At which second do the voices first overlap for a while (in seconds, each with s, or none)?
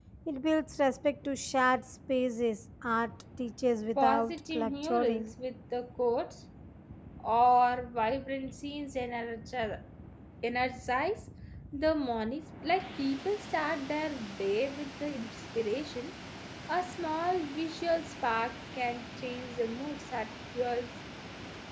4.0 s